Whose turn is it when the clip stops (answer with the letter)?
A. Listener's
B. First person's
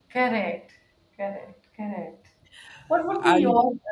B